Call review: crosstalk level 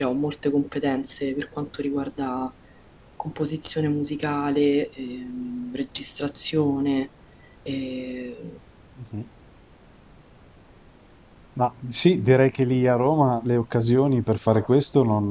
none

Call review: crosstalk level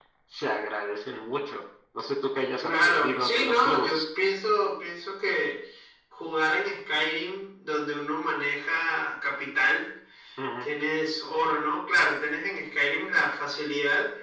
present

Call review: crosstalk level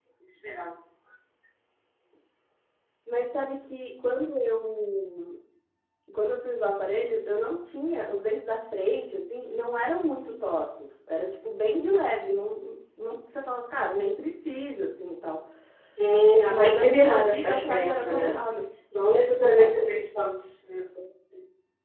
present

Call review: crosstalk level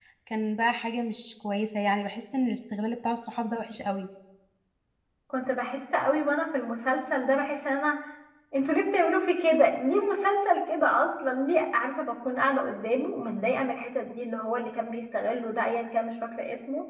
none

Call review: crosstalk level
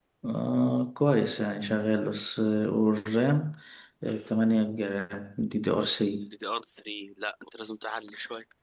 none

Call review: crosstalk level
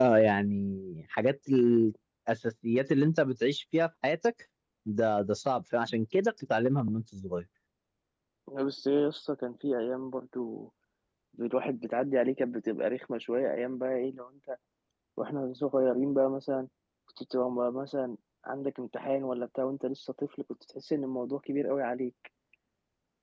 none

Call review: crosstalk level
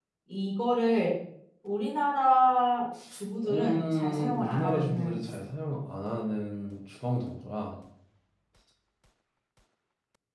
present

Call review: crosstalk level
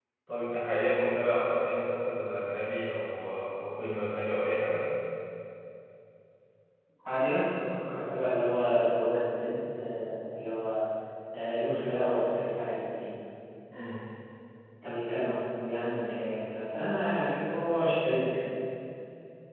none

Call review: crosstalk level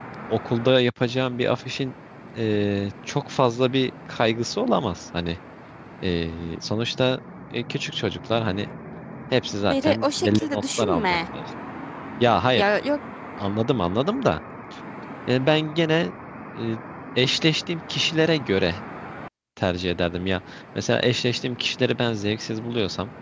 present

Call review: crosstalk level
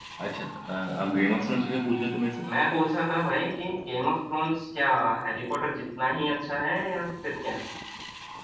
none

